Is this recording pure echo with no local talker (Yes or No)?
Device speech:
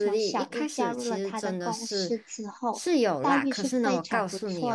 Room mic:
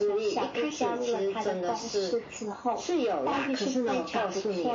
Yes